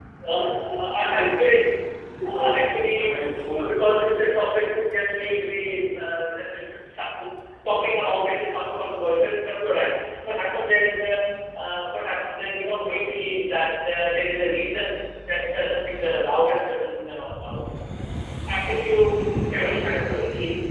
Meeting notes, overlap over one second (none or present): present